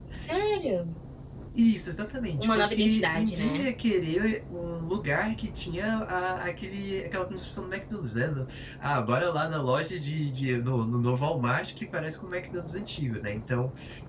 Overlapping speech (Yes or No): Yes